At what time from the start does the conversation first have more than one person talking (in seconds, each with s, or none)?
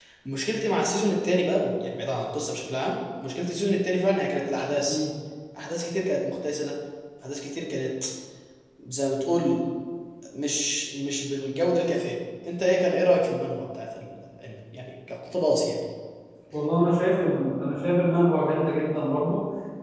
none